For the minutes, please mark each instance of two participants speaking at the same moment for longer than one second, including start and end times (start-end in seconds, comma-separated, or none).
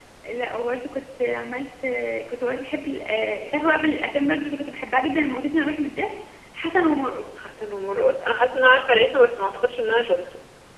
none